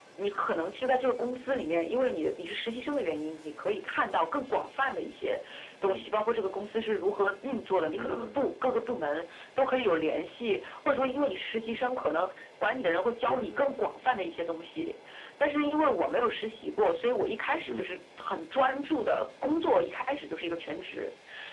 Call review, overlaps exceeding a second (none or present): none